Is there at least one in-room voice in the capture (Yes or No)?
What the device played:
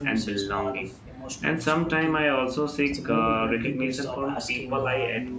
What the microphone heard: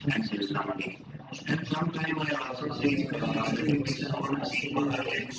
Yes